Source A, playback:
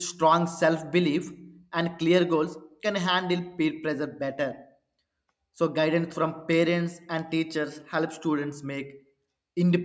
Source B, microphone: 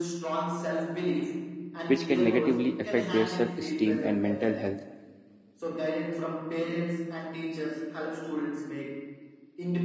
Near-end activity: present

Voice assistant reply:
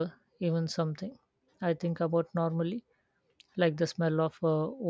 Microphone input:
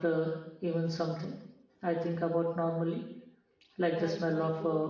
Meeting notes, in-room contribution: present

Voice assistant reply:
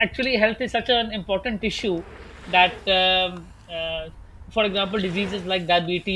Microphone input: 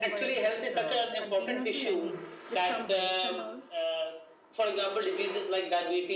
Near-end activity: present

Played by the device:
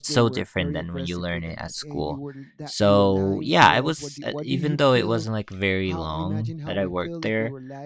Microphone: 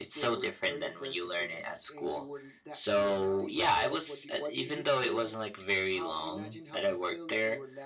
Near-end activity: none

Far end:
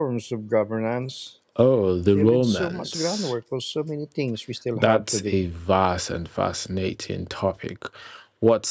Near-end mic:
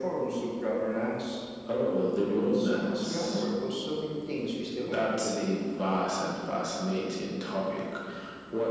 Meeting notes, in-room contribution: none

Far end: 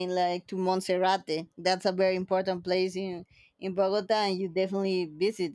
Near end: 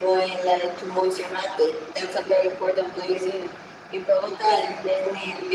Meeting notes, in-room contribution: none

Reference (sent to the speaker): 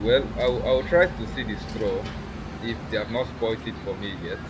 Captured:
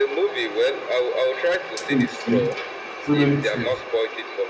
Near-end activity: present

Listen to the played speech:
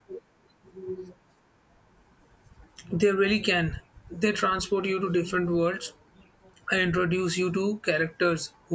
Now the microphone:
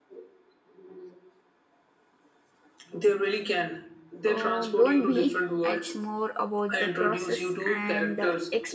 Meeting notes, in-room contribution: present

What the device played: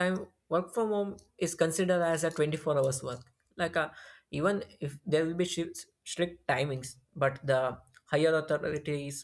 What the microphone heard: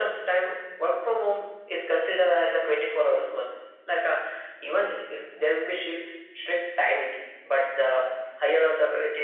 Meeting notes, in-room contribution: none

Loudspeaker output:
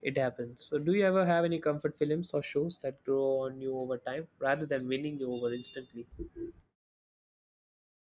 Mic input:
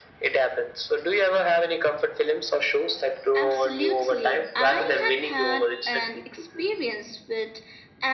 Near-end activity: present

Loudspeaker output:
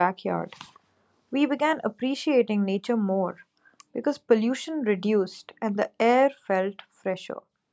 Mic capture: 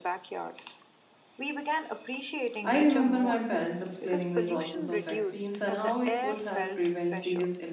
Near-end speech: present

